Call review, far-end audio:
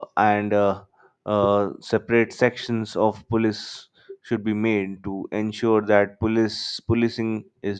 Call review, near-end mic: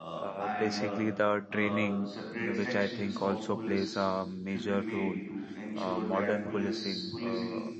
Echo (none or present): present